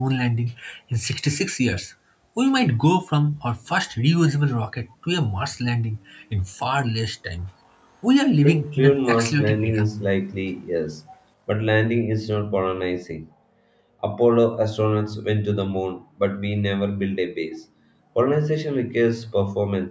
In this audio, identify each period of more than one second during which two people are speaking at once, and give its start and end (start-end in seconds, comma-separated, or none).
8.5-9.8